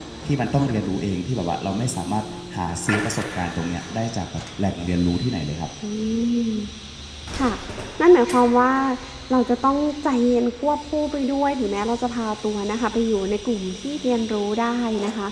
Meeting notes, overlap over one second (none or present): none